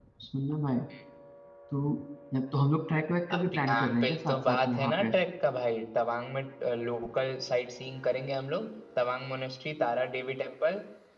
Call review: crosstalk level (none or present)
present